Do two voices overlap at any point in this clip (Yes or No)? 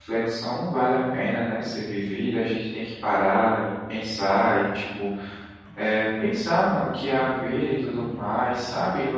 No